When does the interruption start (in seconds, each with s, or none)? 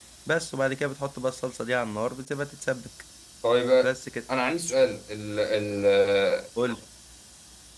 none